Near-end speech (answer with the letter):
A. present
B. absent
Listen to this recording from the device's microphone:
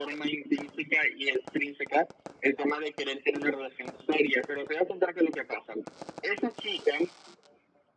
B